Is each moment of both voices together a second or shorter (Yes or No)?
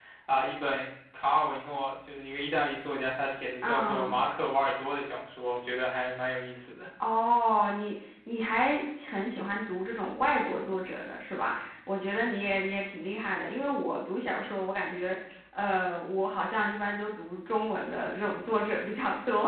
Yes